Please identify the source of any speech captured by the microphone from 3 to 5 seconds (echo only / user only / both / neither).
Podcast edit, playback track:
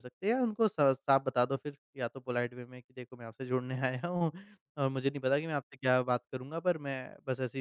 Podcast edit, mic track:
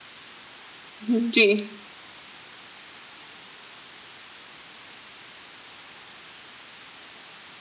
neither